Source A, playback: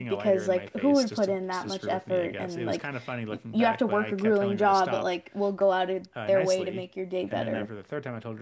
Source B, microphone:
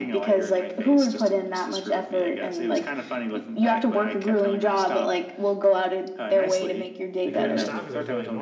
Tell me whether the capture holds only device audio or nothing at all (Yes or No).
No